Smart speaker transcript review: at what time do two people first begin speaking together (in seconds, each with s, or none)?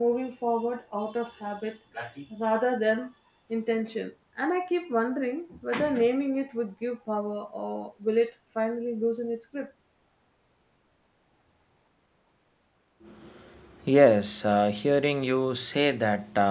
none